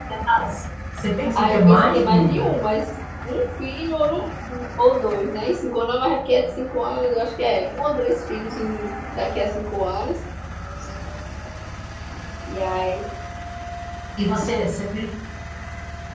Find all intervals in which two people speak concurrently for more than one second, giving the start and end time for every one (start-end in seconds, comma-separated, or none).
1.4-2.5